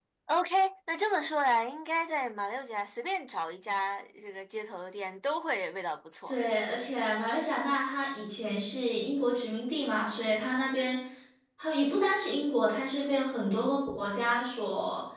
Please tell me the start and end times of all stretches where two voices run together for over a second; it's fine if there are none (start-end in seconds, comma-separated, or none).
none